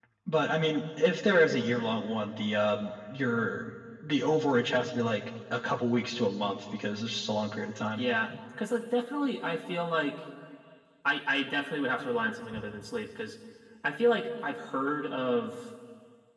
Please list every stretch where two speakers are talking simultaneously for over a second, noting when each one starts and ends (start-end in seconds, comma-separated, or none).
none